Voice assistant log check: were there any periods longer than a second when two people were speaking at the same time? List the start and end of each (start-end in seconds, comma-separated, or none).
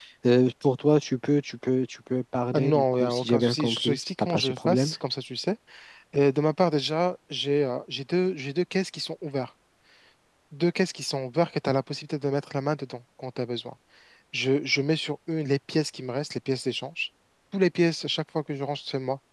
2.5-4.9